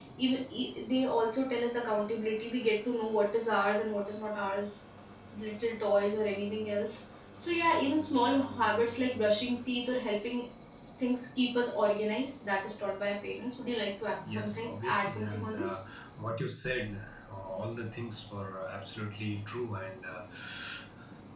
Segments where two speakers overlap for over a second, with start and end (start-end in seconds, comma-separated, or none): 14.3-15.8